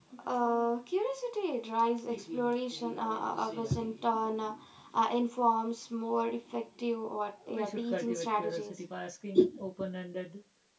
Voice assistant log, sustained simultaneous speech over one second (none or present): present